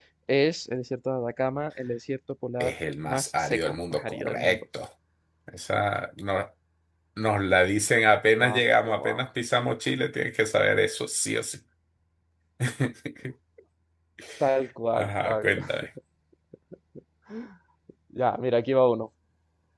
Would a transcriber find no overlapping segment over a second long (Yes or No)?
No